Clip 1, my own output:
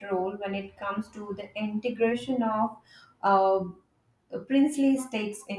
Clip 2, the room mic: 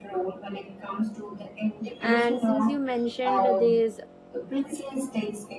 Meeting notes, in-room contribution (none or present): present